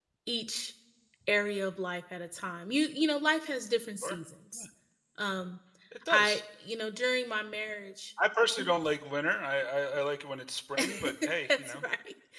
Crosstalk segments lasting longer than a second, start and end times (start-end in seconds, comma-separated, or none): none